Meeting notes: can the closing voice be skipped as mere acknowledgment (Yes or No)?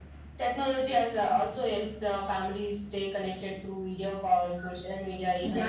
No